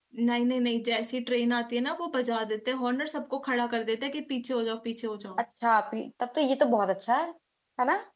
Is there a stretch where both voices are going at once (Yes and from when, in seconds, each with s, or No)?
No